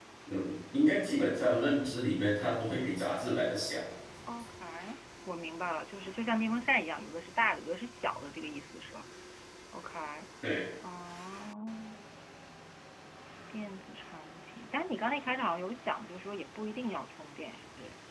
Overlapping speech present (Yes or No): No